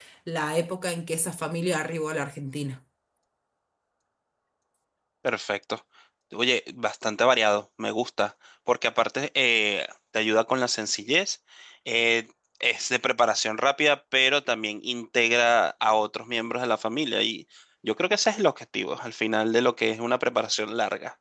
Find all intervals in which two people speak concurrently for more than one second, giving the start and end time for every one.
none

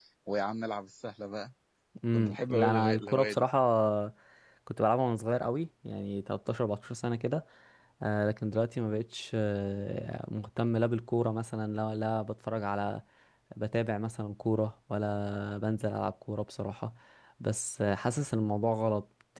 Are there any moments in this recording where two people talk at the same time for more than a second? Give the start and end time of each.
2.1-3.5

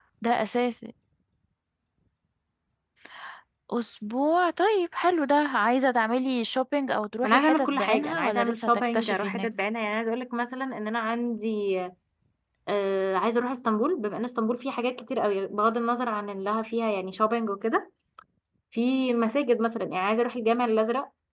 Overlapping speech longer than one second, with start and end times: 7.2-9.5

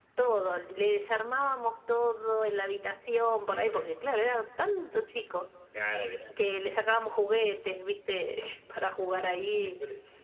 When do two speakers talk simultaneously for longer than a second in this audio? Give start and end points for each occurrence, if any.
none

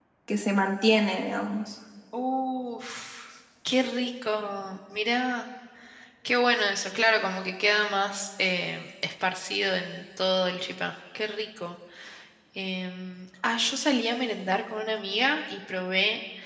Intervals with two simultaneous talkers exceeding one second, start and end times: none

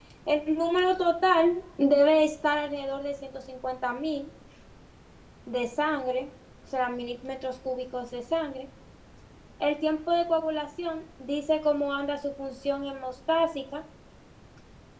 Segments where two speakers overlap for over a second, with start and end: none

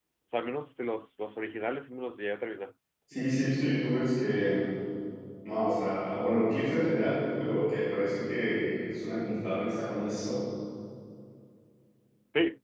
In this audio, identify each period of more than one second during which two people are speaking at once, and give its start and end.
none

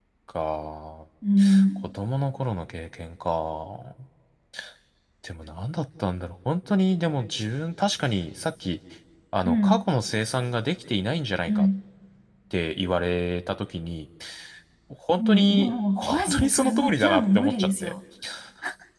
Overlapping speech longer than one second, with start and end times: 15.2-17.9

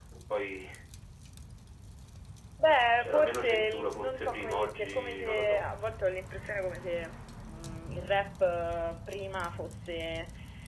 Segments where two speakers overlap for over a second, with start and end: 3.0-5.6

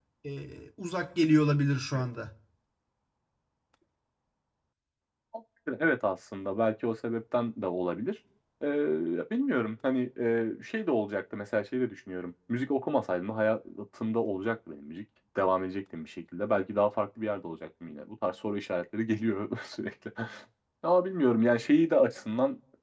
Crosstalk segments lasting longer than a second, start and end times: none

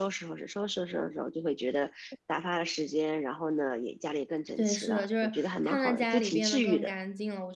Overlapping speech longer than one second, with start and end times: 4.6-6.9

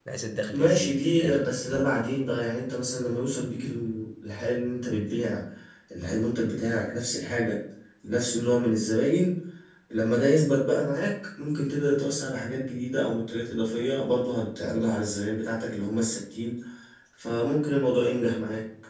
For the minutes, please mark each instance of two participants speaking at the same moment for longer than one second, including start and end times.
0.5-1.9

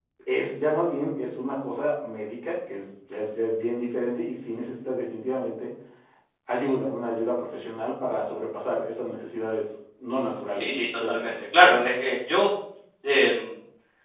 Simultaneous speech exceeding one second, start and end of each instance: 10.1-11.4

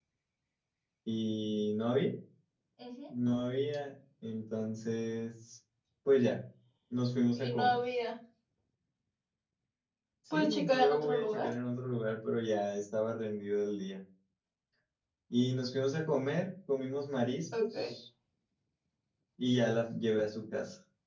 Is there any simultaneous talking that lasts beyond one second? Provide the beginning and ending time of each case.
10.3-11.5

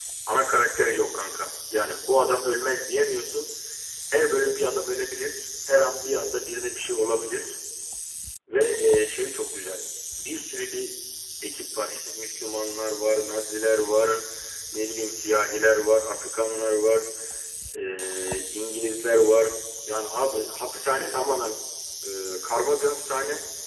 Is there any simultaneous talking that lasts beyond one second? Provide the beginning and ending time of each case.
none

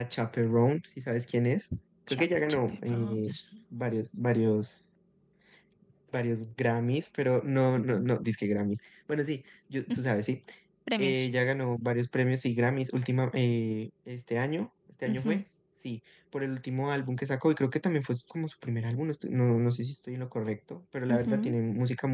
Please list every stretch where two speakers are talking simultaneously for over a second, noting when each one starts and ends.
2.1-3.3

